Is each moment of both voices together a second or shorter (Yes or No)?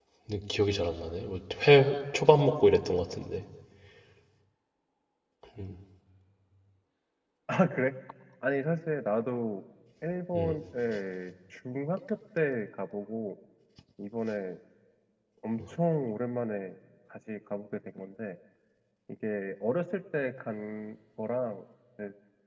Yes